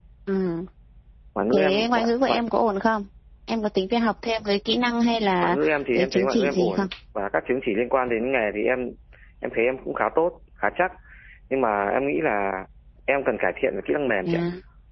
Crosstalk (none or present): present